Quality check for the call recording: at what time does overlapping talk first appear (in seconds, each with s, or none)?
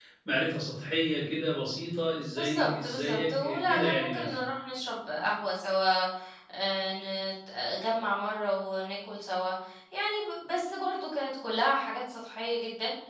2.3 s